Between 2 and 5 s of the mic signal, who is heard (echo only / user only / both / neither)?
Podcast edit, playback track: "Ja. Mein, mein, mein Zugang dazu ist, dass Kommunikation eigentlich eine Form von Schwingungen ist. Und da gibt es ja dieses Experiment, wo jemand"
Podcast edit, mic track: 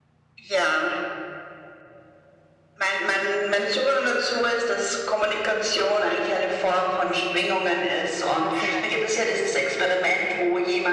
echo only